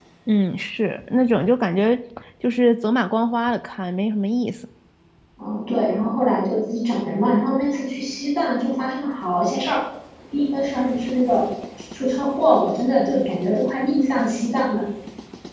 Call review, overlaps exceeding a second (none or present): none